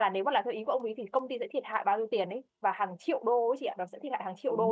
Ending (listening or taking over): taking over